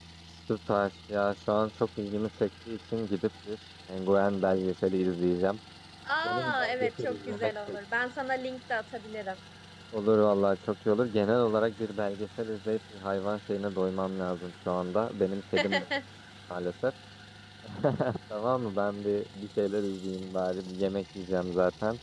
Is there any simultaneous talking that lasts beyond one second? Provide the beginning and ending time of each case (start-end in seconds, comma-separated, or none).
6.2-7.8